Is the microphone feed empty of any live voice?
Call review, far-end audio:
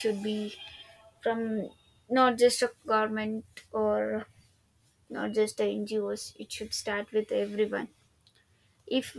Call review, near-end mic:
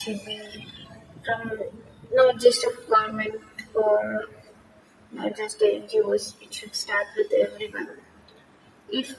Yes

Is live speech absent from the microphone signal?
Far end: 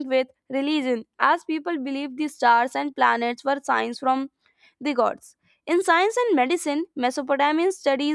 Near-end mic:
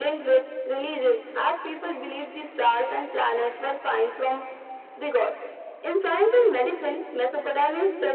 Yes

